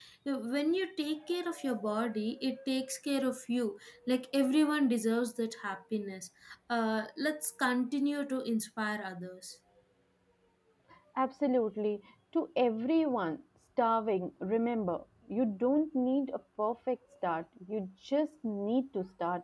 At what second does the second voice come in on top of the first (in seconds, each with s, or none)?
none